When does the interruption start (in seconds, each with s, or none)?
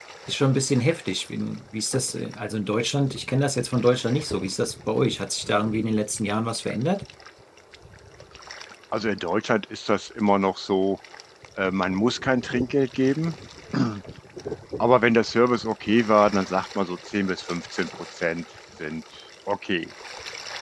none